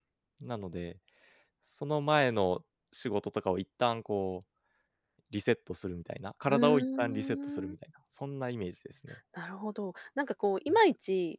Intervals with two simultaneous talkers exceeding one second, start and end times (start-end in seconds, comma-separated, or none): 6.5-7.8